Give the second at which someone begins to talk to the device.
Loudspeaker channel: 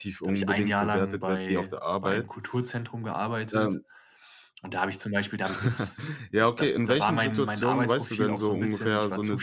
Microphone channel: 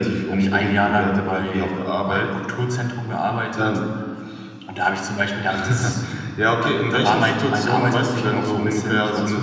none

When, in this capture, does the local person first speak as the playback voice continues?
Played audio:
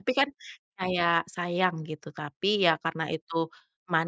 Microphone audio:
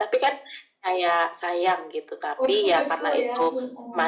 2.4 s

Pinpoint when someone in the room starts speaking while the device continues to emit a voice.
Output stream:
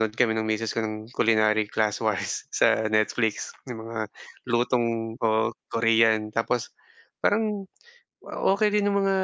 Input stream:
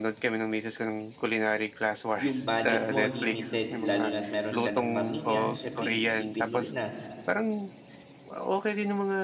2.1 s

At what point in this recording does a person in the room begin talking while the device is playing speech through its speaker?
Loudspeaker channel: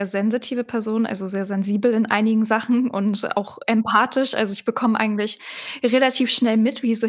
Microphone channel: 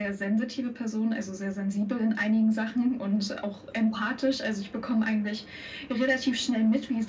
none

